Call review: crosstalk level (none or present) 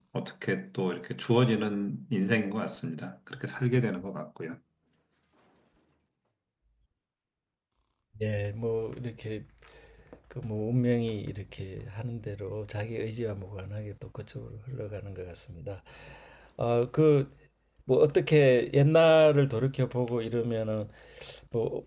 none